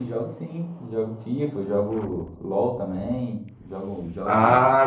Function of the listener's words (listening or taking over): taking over